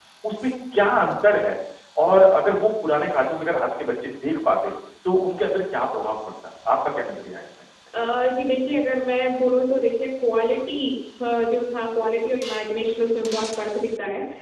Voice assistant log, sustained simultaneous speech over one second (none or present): none